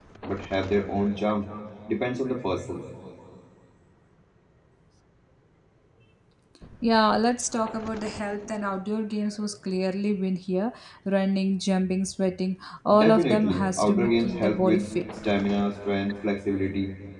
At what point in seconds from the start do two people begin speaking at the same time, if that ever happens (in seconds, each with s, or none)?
12.9 s